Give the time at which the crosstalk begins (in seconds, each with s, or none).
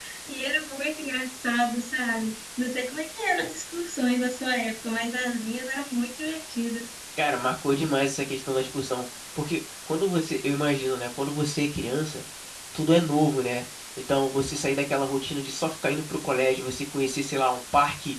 none